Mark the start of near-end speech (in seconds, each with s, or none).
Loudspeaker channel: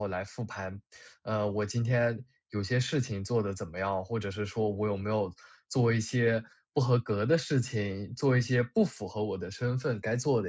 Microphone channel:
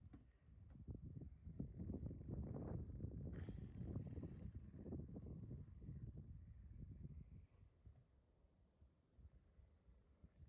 none